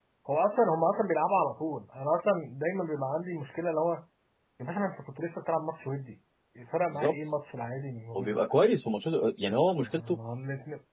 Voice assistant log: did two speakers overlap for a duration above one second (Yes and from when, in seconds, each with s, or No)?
No